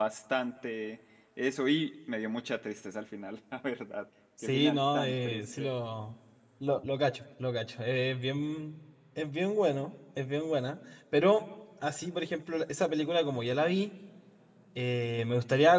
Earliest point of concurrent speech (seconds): 4.4 s

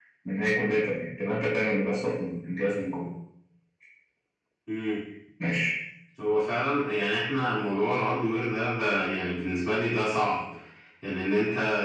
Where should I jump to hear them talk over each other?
none

